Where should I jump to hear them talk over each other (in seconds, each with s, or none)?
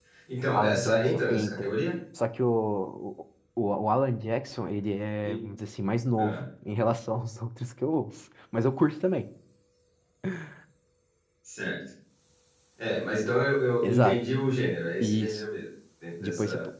0.5 s